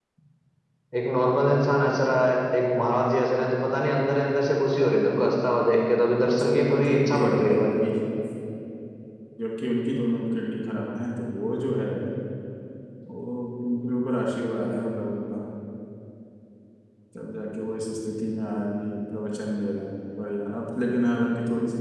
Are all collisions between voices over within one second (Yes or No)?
No